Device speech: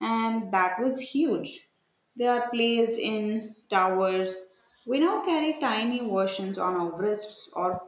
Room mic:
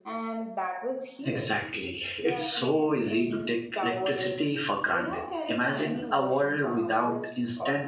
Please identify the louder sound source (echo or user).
user